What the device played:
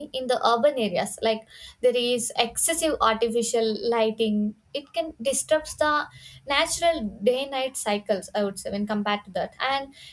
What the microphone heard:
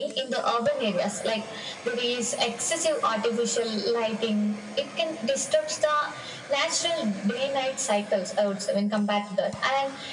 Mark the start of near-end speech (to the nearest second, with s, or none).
none